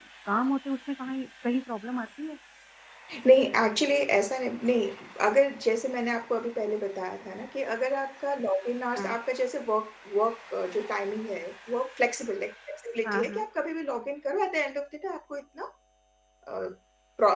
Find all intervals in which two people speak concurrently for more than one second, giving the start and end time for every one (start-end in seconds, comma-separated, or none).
none